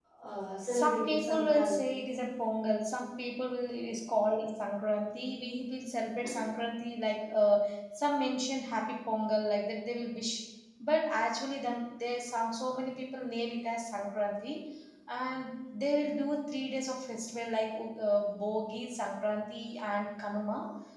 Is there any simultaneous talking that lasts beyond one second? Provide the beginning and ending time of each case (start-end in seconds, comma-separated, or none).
0.7-1.9